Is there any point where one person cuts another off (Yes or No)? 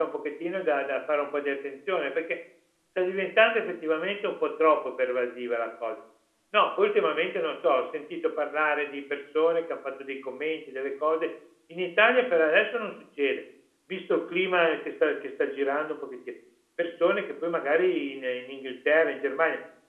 No